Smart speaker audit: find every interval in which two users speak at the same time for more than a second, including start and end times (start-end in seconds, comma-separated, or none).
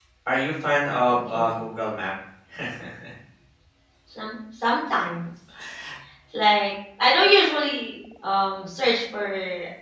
none